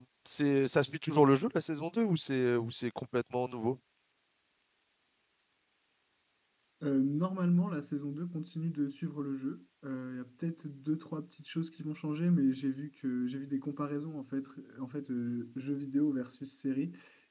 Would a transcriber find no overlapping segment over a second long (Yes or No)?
Yes